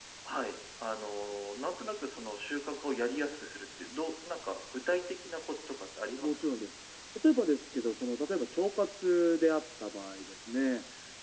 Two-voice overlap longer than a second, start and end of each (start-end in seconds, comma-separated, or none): none